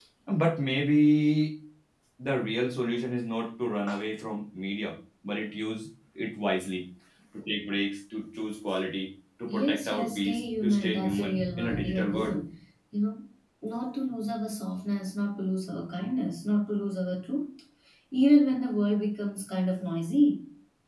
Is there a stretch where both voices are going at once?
Yes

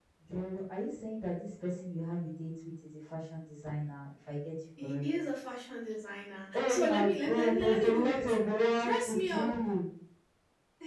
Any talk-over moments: Yes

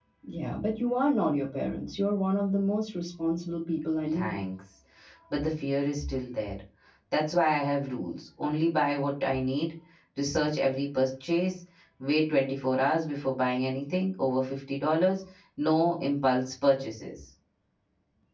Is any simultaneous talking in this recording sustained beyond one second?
No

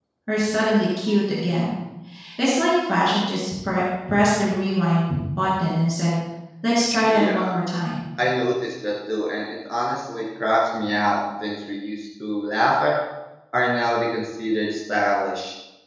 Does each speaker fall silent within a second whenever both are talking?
Yes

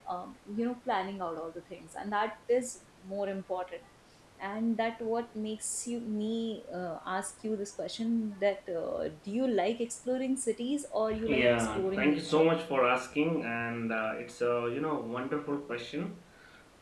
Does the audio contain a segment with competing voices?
Yes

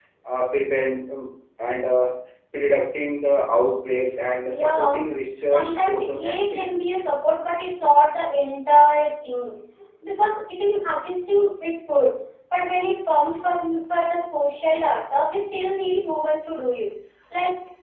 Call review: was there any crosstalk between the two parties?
Yes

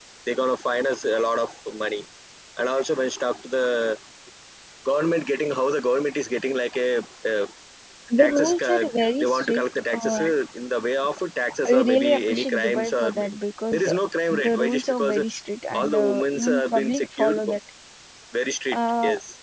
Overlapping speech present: Yes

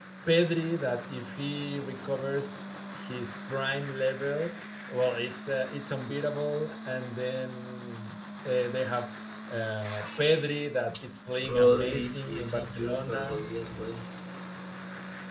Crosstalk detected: Yes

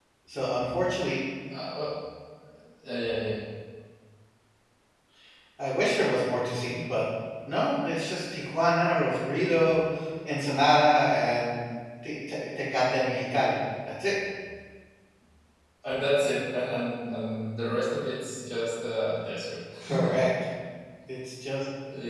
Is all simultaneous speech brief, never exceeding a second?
Yes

